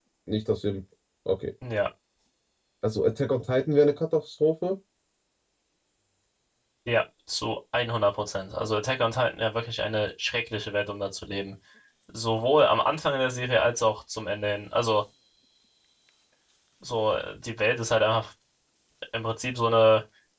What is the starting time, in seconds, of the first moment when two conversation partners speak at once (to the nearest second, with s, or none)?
none